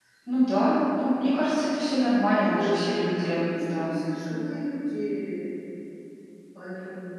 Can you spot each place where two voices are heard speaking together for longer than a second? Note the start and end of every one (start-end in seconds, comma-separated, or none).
2.4-4.0